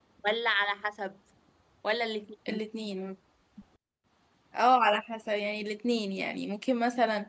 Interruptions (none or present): none